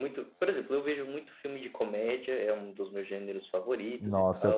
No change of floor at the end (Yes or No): No